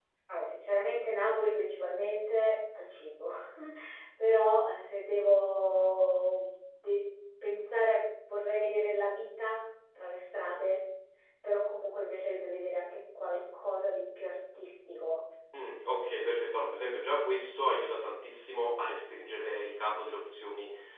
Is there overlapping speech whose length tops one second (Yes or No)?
No